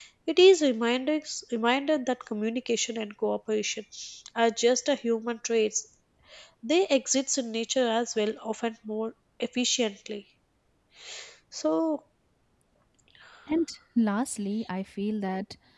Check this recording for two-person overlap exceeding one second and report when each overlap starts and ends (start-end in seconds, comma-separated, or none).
none